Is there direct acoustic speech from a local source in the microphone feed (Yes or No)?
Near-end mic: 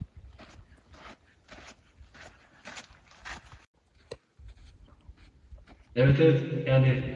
Yes